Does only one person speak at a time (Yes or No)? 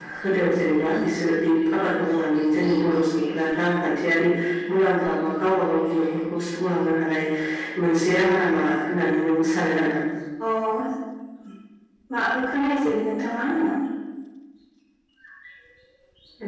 Yes